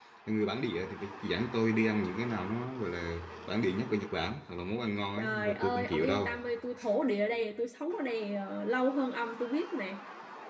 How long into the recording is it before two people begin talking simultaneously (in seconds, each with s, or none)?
5.2 s